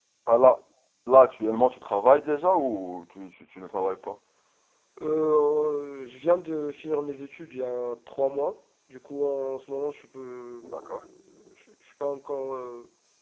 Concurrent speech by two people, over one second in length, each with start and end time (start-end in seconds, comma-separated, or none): none